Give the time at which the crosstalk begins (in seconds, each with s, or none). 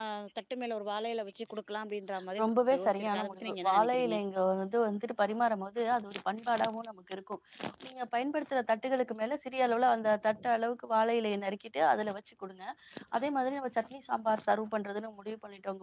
2.8 s